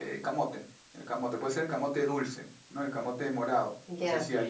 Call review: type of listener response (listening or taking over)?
taking over